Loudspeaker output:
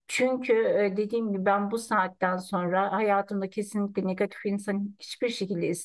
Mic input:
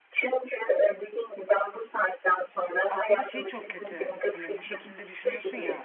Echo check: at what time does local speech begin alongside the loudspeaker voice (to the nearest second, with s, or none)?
3 s